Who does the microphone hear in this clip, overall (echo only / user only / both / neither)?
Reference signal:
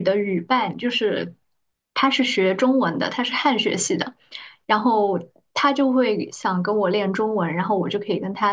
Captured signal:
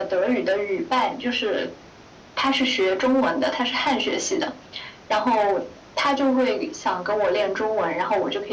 echo only